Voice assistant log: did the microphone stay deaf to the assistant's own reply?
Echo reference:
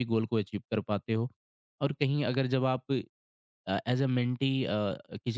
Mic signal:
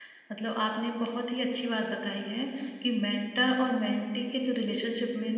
Yes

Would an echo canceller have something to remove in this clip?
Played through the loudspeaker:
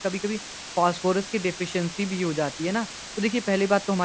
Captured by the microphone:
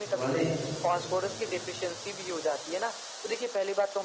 Yes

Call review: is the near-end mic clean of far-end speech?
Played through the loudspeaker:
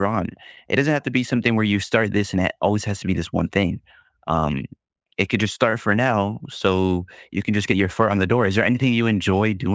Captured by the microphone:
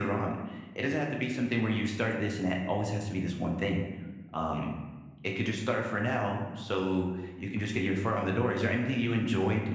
No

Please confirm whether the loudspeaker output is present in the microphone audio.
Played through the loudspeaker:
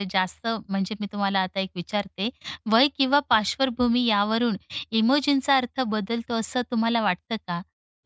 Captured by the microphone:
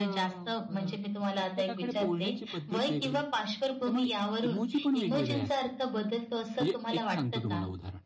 Yes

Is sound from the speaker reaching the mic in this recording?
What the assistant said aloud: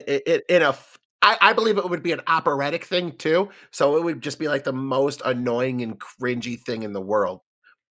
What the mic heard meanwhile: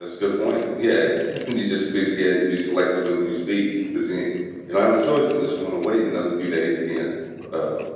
No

